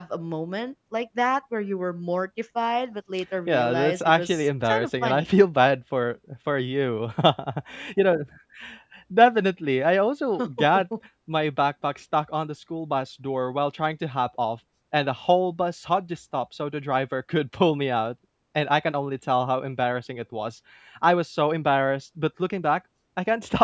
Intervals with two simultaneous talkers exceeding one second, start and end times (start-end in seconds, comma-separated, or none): 3.5-5.3